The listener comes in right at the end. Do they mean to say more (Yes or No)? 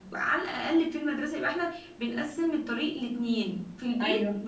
No